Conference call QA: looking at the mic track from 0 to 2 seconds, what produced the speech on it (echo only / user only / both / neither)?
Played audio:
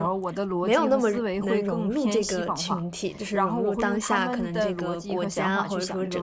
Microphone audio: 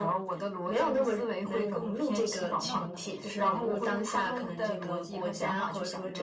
echo only